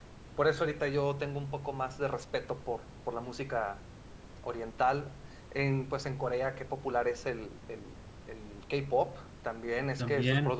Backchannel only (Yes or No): No